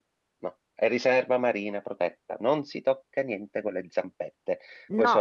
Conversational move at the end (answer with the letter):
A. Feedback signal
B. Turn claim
B